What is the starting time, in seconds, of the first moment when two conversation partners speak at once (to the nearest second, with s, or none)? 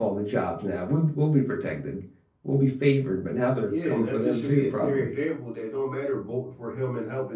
4 s